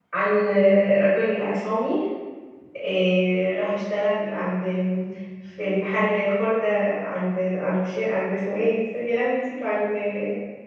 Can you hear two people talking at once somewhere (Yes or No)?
No